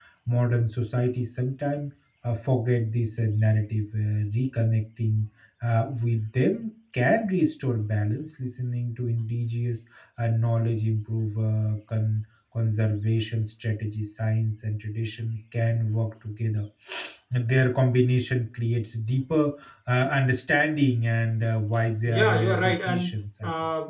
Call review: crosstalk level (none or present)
present